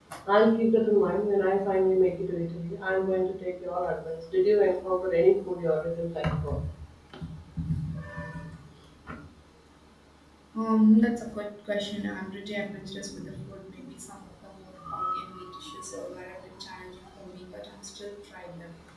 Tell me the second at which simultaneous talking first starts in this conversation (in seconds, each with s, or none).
none